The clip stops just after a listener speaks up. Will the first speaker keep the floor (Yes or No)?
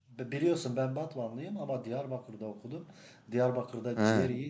Yes